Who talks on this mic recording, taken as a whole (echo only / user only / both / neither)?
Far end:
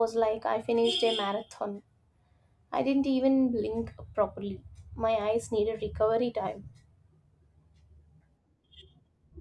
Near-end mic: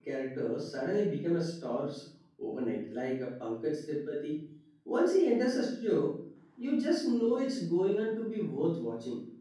user only